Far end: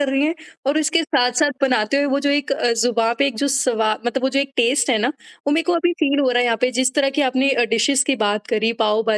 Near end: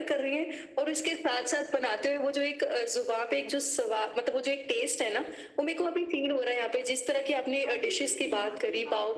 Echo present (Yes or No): Yes